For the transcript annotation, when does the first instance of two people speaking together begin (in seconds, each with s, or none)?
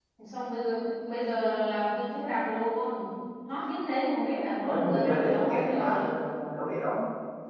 4.6 s